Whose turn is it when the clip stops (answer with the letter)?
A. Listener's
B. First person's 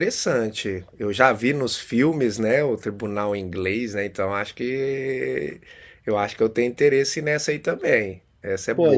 A